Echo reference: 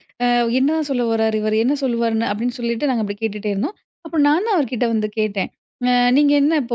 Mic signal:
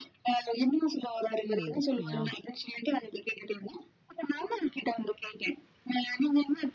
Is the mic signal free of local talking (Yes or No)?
No